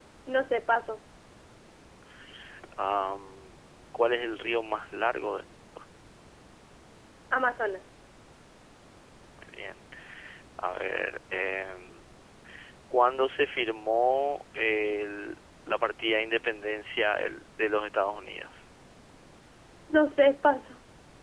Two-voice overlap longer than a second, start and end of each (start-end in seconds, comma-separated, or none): none